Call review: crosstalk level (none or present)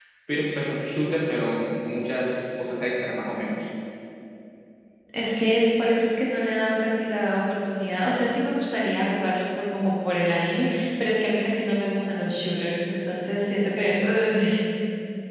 none